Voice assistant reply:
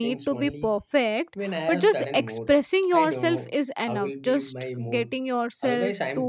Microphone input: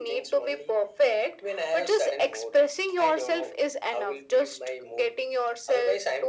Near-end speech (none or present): none